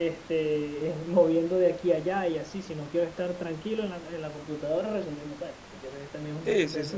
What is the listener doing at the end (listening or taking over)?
taking over